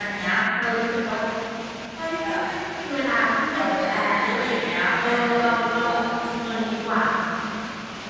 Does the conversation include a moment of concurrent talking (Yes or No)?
Yes